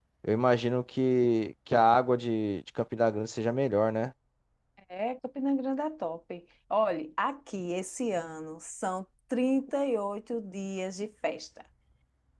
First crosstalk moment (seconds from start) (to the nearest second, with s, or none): none